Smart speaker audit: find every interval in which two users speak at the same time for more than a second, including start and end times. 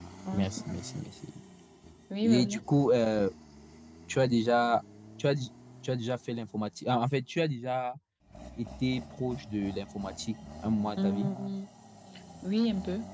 none

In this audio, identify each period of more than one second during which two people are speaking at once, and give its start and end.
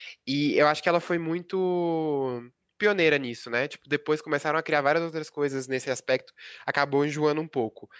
none

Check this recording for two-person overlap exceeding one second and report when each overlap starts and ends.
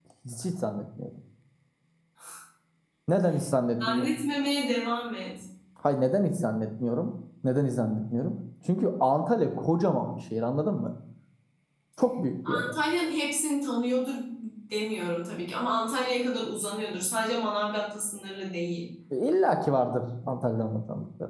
none

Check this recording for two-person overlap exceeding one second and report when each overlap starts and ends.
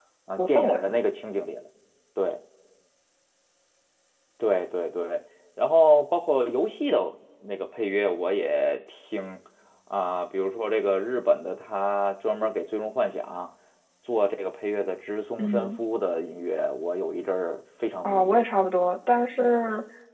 none

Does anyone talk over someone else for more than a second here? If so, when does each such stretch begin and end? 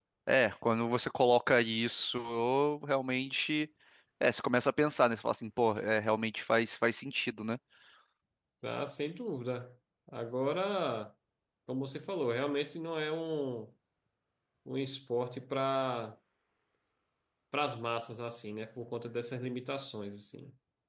none

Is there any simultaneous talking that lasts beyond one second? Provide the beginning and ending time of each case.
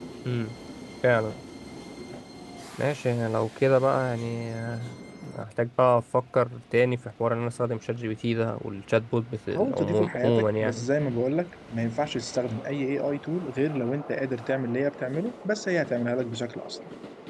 9.5-10.9

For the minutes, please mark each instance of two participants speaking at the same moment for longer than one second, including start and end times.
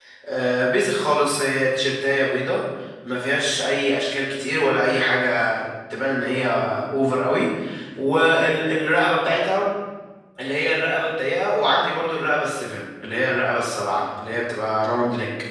none

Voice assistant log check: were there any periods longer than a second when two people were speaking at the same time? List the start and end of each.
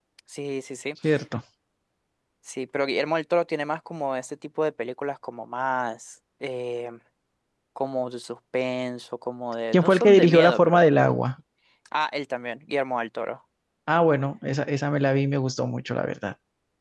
9.7-11.2

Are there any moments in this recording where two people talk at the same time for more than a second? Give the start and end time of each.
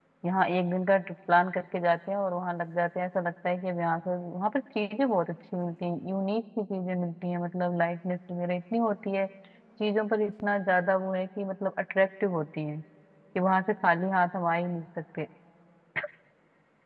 none

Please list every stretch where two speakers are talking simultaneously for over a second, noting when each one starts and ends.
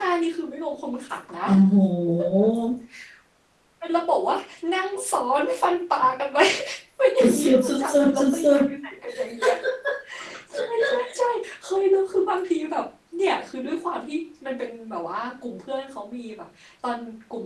7.2-8.6

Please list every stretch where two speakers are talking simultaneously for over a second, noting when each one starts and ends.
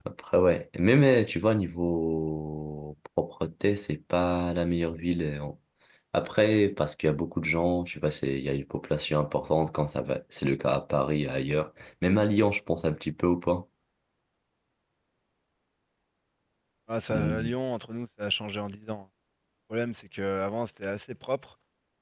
none

